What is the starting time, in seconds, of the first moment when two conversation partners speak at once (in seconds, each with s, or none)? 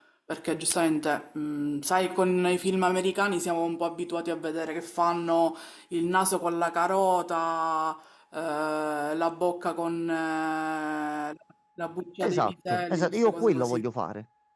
12.2 s